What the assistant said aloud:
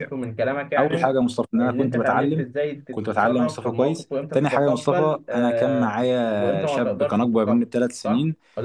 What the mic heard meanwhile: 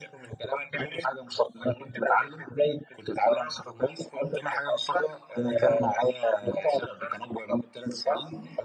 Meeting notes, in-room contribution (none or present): none